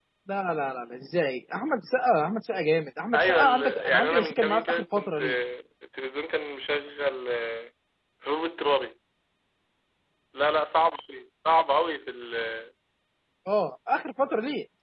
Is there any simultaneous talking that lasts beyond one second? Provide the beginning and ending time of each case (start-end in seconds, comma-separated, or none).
3.1-5.3